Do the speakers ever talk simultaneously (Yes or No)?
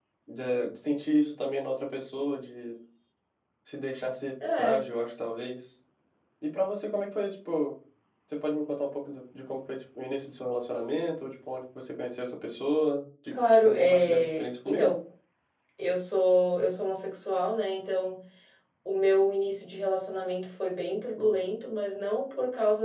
Yes